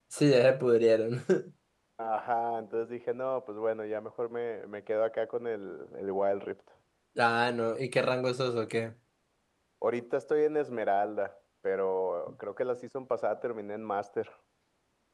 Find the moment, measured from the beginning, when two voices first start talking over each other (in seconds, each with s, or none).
none